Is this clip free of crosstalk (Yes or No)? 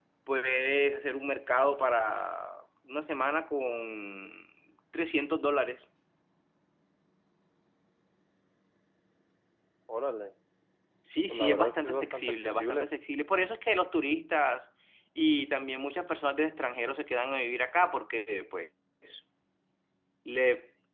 No